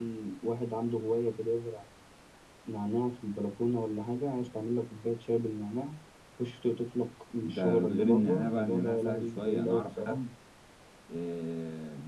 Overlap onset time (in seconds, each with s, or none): 7.4 s